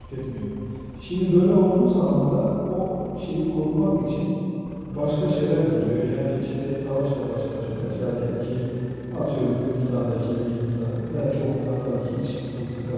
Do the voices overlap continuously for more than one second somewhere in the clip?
No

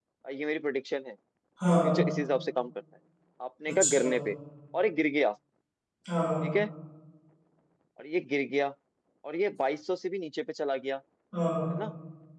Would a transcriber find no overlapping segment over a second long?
Yes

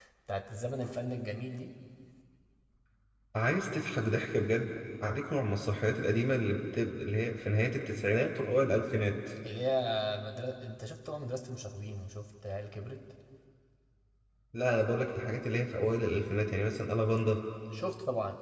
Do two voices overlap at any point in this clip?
No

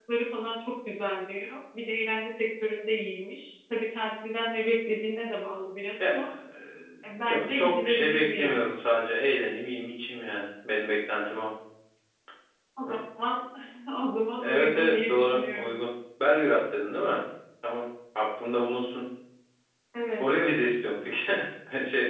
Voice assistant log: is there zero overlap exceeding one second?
No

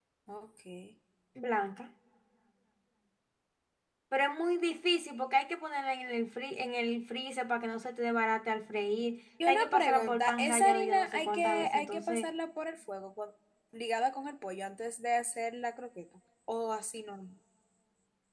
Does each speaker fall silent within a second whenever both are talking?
No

